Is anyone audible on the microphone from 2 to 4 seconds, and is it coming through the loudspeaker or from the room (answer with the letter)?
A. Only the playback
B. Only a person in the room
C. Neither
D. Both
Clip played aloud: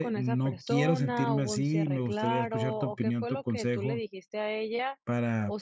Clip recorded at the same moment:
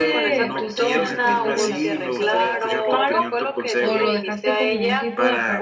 D